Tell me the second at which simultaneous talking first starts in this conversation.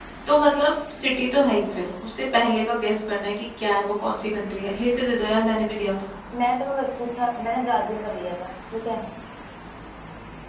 none

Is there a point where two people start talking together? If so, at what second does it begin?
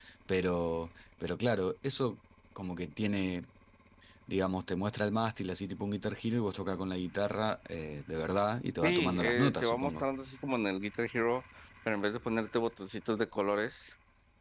9 s

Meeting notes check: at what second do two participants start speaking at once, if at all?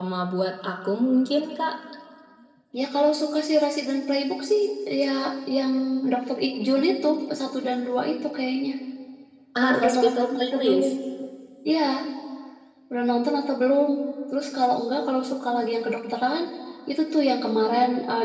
10 s

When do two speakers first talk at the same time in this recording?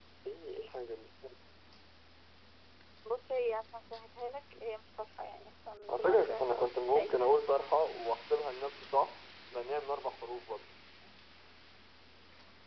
6 s

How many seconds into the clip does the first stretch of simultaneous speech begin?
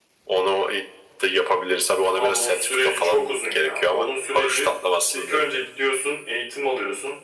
2 s

